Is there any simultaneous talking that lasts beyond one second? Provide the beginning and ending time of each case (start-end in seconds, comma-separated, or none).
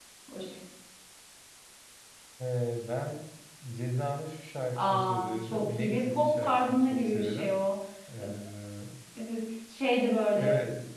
4.8-7.5